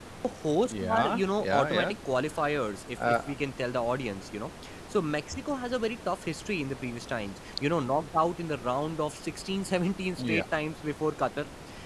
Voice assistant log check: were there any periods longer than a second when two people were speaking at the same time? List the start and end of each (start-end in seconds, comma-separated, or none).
0.7-1.9